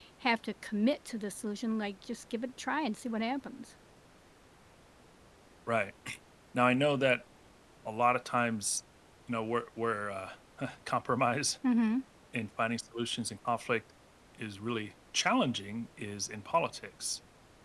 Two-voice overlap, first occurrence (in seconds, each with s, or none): none